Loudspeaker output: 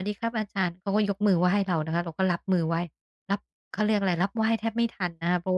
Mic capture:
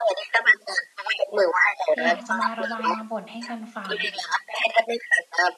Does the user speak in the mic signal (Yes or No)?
Yes